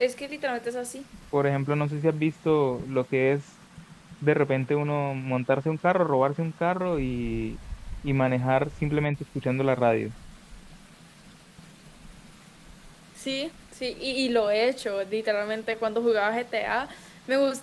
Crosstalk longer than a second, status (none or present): none